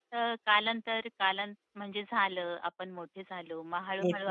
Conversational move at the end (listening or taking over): taking over